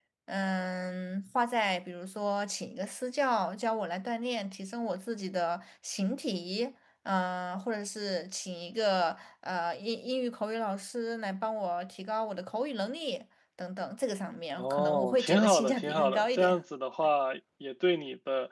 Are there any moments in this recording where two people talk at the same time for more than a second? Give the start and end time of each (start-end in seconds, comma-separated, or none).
14.6-16.6